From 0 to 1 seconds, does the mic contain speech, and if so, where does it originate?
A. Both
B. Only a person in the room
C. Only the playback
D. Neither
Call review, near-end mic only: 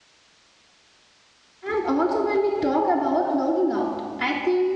D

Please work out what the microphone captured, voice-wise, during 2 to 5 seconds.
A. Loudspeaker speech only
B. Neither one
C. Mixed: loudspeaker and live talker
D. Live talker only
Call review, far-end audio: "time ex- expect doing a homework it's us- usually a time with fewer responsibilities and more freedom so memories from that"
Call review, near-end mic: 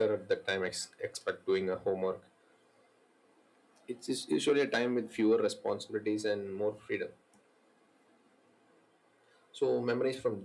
A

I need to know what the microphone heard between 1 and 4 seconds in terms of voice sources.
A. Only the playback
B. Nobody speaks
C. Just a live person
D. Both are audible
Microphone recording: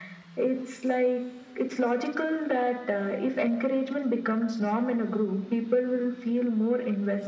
A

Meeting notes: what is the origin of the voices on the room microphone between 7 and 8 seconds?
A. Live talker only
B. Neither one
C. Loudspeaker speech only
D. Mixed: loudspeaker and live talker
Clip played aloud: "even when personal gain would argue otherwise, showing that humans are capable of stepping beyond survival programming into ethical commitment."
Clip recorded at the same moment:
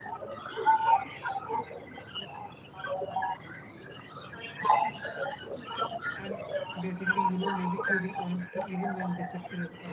D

